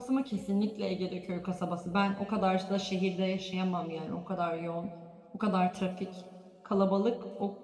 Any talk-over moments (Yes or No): No